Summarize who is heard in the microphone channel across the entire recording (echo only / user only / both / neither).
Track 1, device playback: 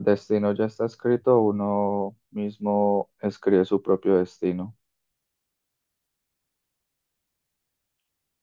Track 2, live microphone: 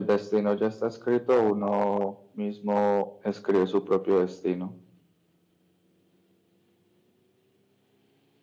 echo only